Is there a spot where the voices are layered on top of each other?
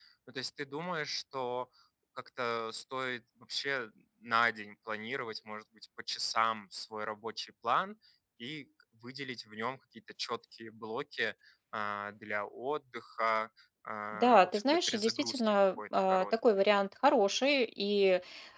Yes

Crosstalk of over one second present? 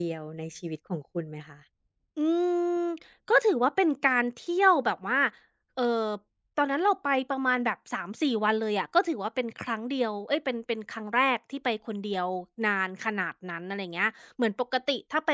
No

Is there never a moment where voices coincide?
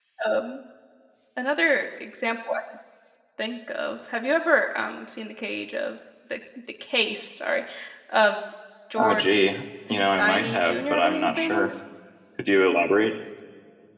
No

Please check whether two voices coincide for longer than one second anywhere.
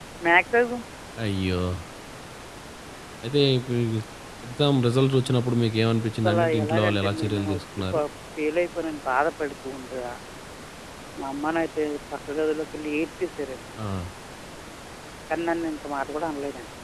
Yes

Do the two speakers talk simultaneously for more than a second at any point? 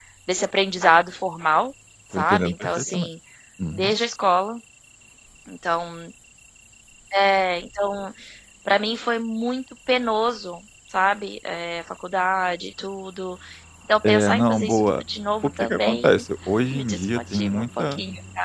Yes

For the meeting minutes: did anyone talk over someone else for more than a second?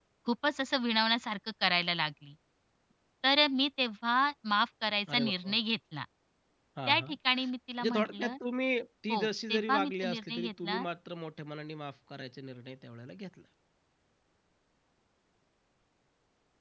Yes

